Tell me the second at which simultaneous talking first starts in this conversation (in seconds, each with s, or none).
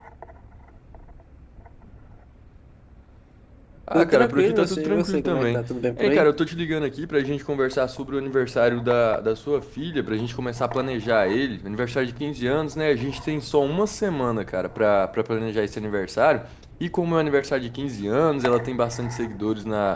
3.9 s